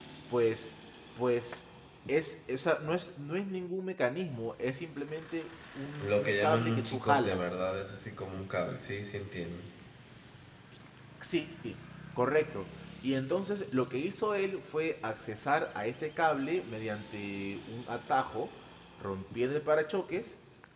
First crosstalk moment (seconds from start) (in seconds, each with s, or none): 6.0 s